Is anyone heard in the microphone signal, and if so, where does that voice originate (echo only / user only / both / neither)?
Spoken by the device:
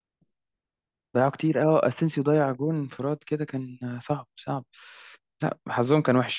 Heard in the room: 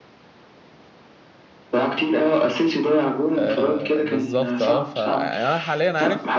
both